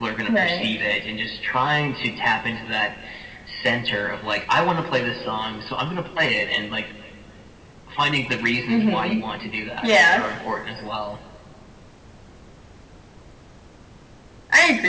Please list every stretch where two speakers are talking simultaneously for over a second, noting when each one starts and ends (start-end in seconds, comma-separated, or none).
none